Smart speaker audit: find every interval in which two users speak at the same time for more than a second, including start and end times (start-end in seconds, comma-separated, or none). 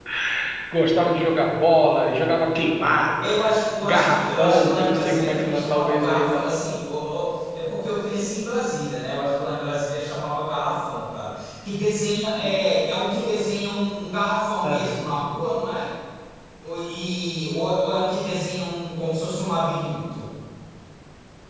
3.8-6.4